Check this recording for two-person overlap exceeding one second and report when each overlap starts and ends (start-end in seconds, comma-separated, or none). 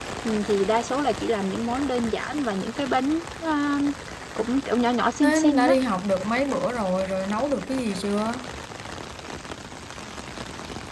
none